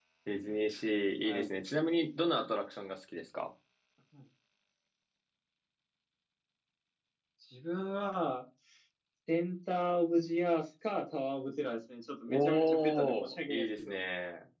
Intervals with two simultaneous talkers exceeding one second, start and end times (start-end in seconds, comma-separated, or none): 12.3-14.0